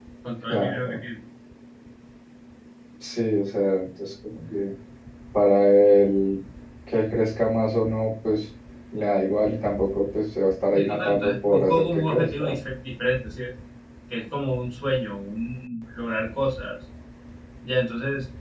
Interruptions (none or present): present